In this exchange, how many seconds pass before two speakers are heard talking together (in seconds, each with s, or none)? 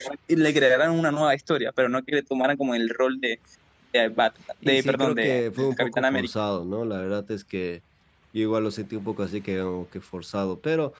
4.6 s